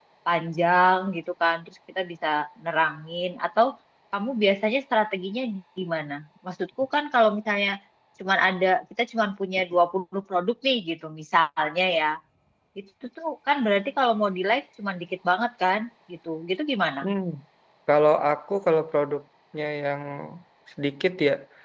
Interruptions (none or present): none